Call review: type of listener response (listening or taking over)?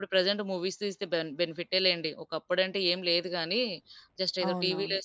listening